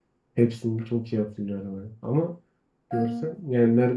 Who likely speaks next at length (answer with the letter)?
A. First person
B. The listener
A